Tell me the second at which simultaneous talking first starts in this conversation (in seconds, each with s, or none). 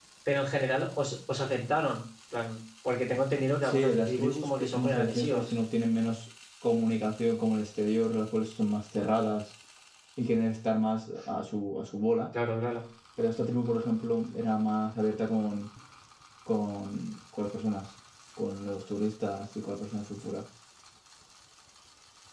3.6 s